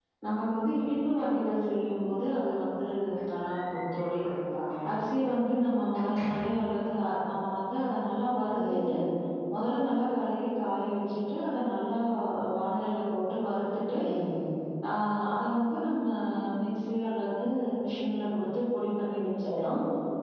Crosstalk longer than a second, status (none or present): none